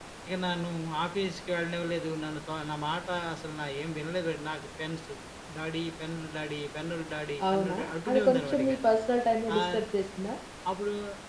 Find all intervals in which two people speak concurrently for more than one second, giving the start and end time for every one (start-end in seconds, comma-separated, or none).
7.5-8.7